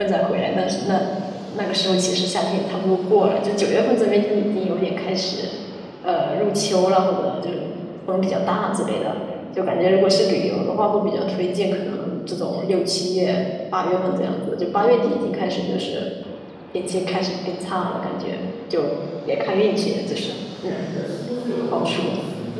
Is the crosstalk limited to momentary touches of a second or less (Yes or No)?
Yes